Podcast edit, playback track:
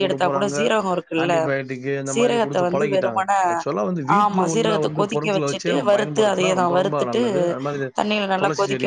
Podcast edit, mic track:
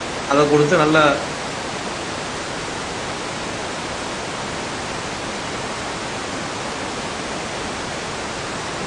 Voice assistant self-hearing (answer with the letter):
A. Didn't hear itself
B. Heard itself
A